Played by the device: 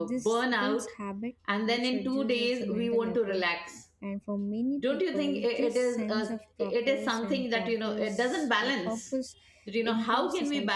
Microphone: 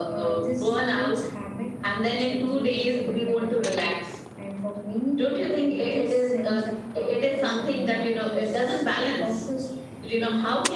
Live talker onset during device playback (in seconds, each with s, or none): none